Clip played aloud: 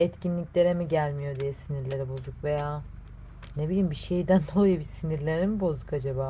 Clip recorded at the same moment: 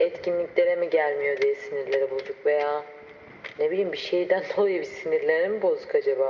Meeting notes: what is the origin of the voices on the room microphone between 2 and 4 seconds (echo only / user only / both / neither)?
echo only